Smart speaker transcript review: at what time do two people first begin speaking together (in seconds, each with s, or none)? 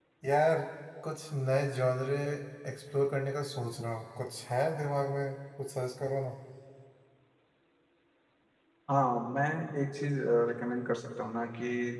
none